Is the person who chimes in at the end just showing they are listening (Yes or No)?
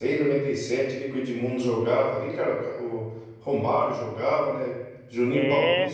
Yes